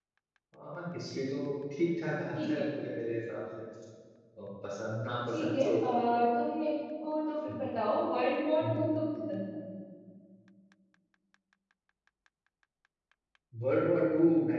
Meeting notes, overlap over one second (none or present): none